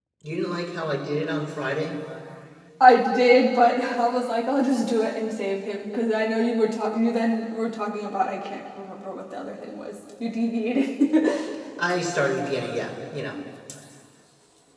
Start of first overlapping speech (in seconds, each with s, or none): none